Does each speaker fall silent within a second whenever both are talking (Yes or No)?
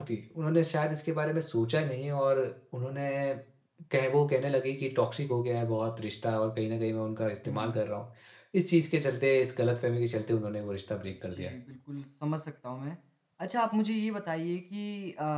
Yes